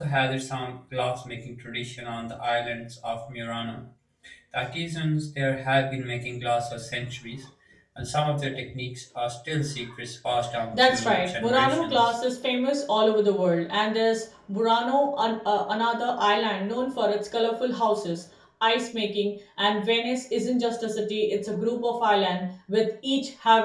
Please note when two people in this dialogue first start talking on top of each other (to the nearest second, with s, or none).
11 s